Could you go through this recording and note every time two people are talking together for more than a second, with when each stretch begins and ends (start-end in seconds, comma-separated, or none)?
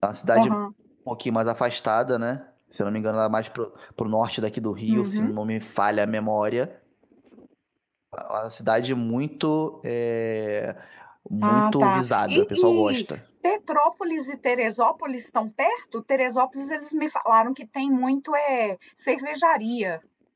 11.4-13.0